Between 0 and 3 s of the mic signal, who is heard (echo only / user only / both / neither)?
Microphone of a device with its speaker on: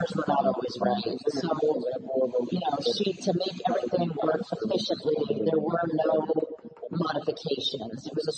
echo only